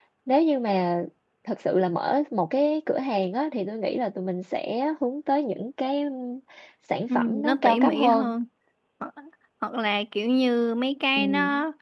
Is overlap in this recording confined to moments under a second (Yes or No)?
No